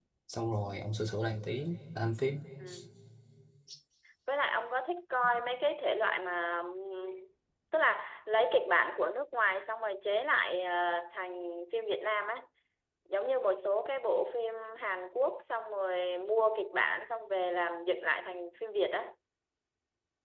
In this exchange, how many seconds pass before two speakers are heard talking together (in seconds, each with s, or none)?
none